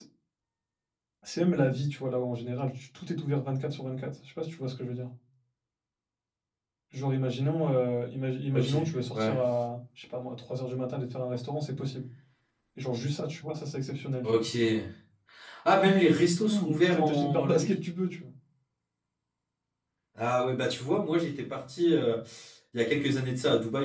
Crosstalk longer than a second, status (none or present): present